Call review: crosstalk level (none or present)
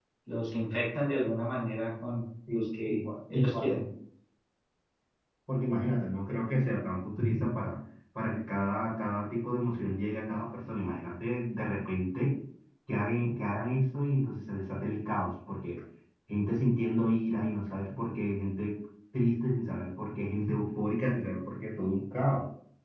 present